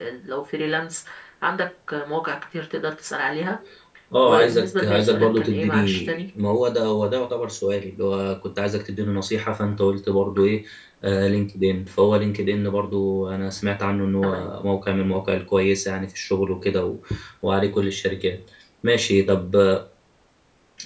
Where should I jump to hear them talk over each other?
4.2 s

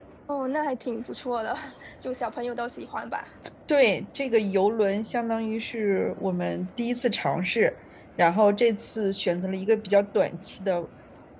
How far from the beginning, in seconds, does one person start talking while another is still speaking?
none

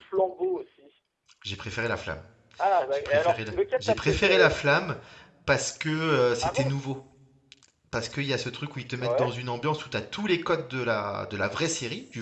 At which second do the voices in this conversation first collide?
2.9 s

